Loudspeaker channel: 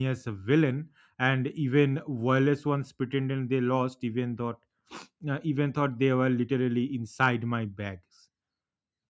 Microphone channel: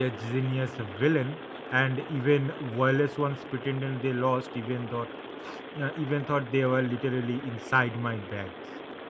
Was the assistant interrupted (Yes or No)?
No